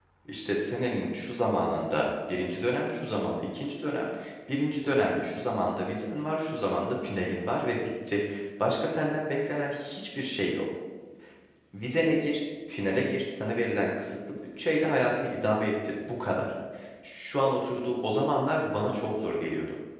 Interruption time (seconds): none

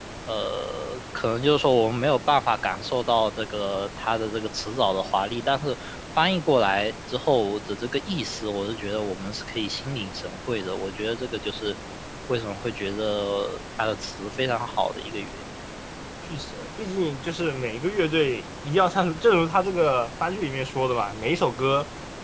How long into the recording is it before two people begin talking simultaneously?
none

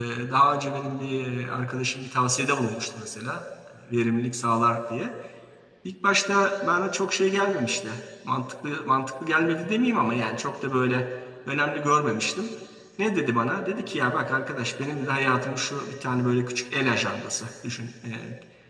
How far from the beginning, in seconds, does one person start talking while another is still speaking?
none

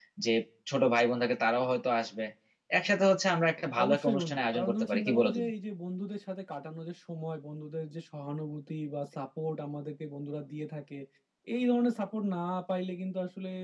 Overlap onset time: 4 s

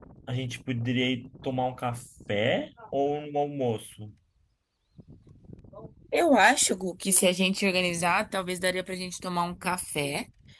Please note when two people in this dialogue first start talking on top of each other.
none

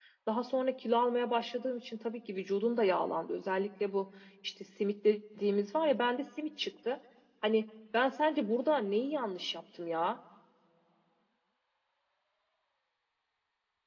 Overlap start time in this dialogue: none

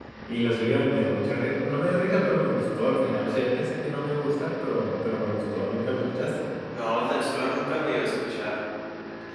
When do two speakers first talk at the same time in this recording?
none

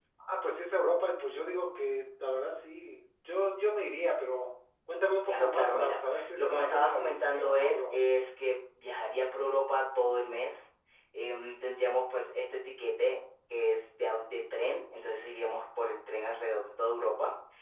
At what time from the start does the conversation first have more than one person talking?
5 s

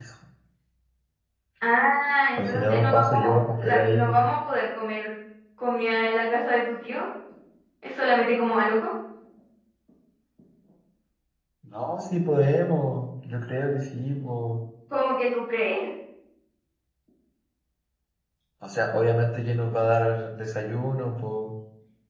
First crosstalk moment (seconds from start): 2 s

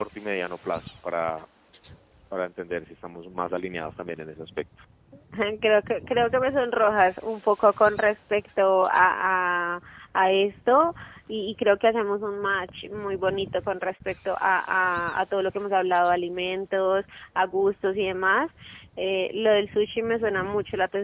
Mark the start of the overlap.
none

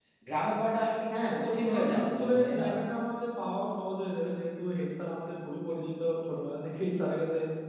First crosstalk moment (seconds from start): 1 s

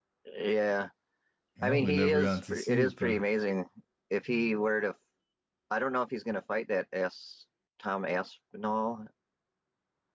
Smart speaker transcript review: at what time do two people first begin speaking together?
2 s

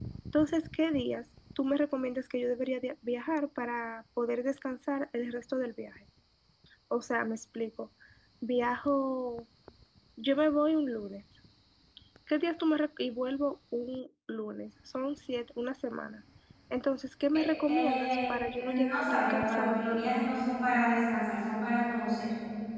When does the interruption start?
18 s

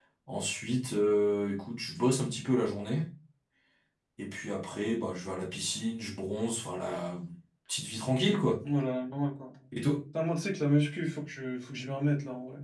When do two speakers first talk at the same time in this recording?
none

